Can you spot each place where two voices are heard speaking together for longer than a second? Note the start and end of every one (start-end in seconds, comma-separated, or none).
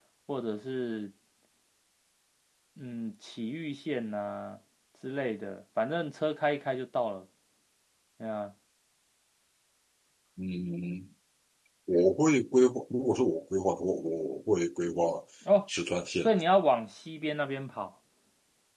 none